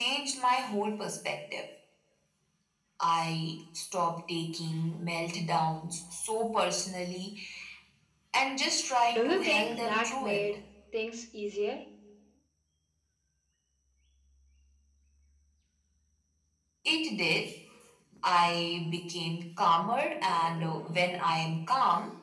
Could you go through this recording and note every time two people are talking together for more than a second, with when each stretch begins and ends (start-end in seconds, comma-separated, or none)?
9.1-10.6